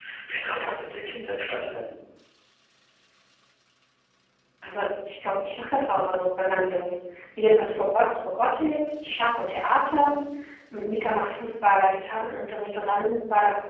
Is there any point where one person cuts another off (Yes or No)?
No